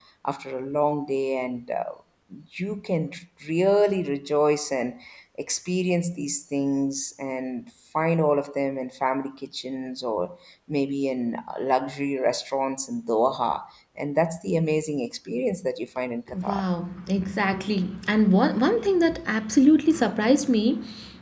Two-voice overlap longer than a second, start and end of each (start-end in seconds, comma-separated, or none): none